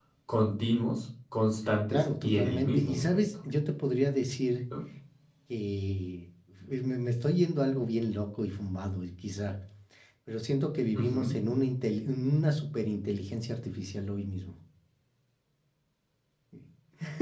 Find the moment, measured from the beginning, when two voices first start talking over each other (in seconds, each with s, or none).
1.9 s